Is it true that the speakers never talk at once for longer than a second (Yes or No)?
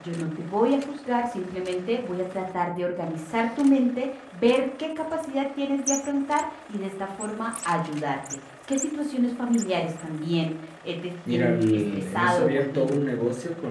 No